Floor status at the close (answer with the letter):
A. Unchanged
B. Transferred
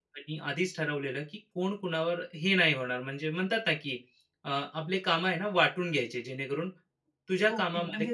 B